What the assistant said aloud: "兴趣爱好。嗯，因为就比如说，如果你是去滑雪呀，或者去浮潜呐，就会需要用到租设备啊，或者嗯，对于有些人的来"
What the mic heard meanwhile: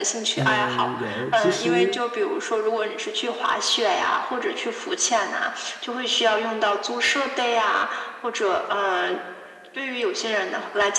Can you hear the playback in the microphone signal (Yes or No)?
Yes